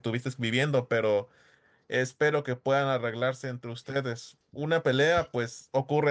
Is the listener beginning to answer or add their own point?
No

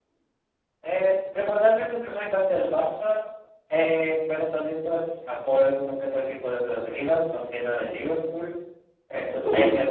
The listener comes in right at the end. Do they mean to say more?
No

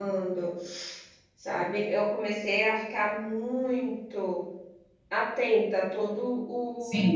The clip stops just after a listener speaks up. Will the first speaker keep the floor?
No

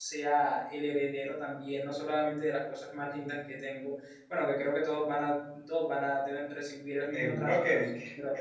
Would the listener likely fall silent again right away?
No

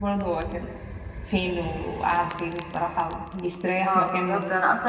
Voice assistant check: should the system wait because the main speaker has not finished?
No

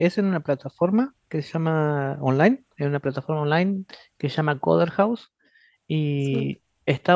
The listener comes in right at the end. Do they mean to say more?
No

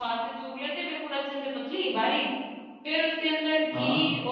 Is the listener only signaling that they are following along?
Yes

